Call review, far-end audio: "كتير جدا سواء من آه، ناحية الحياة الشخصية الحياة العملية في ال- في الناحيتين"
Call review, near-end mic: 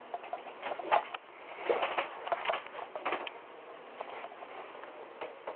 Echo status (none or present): none